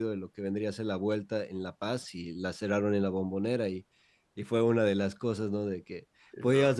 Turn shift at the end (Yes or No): No